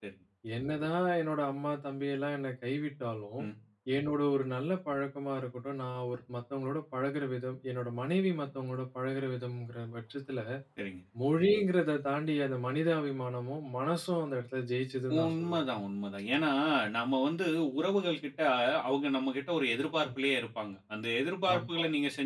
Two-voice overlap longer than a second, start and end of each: none

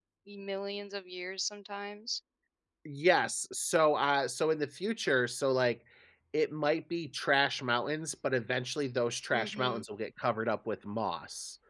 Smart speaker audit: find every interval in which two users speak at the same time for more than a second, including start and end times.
none

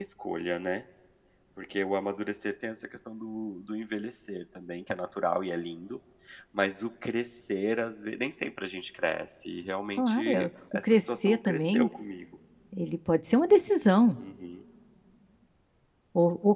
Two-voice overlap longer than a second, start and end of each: 10.0-11.9

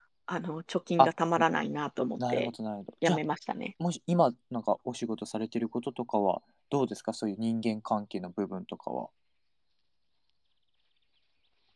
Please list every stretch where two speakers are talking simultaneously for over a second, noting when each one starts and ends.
none

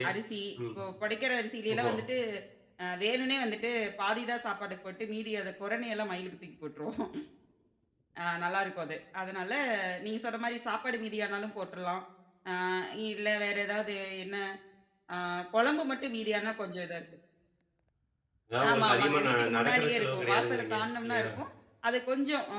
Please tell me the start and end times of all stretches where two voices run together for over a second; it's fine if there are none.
18.7-21.3

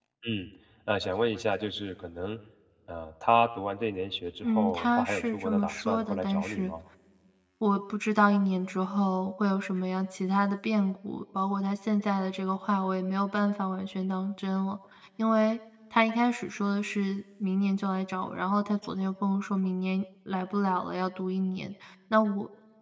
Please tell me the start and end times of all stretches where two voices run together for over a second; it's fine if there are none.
4.4-6.7

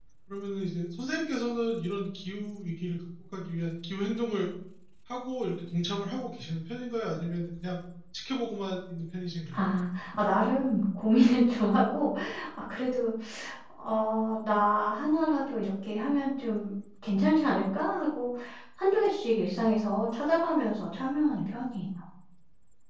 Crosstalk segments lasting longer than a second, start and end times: none

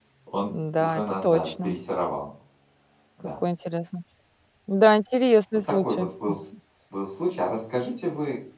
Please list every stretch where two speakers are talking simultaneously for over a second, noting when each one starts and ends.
0.5-1.8

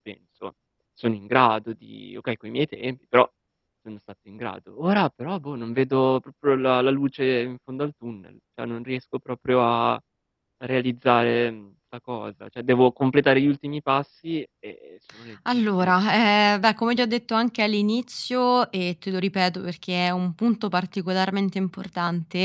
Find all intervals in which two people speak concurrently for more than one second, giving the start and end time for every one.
none

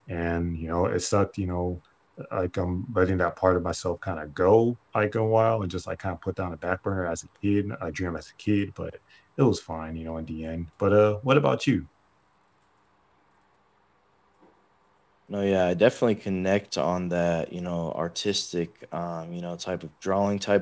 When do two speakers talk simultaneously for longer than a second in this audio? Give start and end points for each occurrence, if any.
none

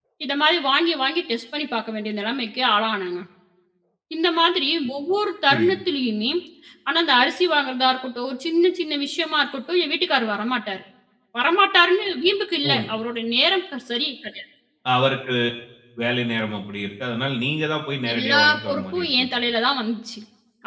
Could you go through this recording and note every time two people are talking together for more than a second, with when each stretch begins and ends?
18.1-19.4

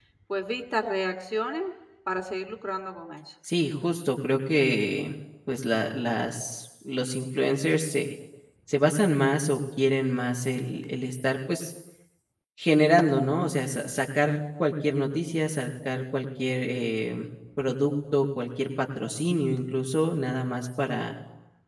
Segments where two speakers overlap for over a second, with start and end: none

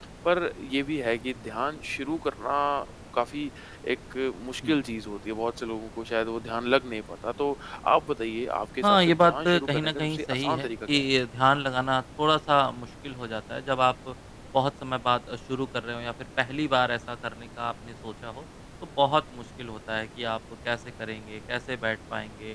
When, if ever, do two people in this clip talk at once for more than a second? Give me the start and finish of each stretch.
8.8-11.1

